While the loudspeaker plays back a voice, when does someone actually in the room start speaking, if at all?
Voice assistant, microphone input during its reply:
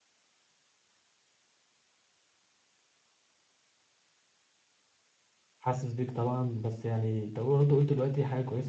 5.6 s

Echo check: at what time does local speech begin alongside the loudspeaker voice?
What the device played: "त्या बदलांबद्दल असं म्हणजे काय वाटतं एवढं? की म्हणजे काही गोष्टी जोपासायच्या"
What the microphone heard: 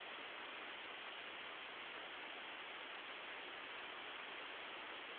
none

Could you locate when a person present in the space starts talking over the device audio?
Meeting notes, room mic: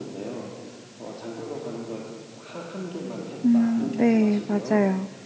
3.4 s

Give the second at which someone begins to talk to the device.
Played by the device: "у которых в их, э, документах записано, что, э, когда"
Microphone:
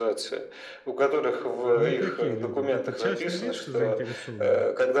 1.7 s

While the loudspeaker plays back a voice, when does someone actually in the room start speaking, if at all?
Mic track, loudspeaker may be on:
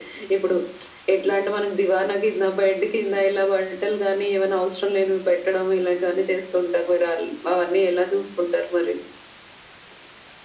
none

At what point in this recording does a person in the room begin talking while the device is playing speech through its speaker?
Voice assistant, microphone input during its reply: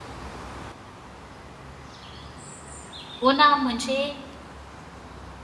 3.2 s

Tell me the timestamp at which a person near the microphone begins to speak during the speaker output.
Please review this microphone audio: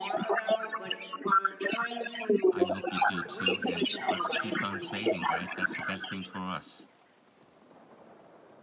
2.4 s

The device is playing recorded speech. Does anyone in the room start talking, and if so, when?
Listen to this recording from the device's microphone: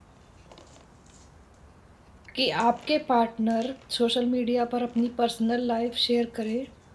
2.4 s

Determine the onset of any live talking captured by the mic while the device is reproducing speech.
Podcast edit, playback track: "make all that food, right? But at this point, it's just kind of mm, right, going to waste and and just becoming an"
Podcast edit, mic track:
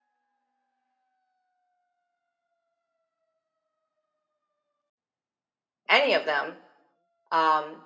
5.9 s

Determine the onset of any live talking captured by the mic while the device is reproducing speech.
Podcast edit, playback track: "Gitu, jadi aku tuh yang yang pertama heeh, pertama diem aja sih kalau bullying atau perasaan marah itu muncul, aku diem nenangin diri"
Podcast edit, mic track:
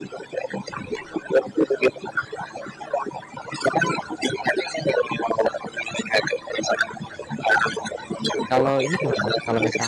8.5 s

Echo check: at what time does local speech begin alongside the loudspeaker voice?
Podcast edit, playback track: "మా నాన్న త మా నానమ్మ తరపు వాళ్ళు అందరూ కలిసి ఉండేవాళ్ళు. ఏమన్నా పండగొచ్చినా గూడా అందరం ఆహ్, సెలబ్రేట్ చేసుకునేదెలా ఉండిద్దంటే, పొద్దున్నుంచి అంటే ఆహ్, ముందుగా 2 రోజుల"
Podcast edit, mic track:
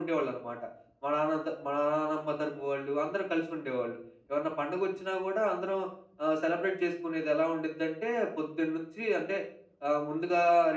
none

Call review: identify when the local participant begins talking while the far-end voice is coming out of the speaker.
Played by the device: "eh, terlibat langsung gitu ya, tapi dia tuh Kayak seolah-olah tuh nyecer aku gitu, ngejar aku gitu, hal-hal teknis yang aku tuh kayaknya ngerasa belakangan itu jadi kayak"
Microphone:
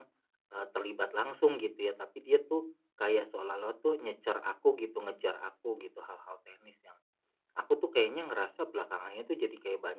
none

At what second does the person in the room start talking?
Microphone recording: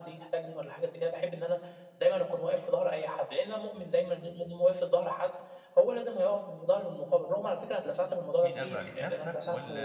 8.4 s

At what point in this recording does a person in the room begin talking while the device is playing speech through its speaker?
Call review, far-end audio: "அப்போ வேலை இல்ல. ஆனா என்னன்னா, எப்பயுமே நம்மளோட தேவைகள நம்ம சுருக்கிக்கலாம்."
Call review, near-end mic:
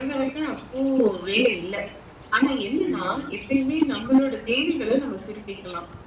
2.8 s

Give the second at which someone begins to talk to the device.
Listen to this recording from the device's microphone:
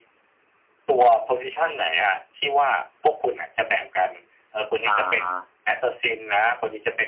4.9 s

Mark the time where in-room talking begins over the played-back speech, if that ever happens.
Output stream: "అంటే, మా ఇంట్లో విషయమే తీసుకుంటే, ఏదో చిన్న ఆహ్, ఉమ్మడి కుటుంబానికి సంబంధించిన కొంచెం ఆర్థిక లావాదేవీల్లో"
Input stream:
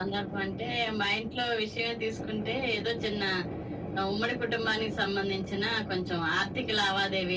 none

